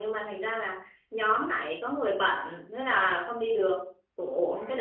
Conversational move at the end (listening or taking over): listening